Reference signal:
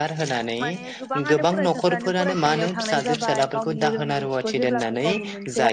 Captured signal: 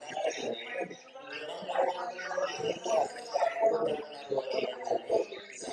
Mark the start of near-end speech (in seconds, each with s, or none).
none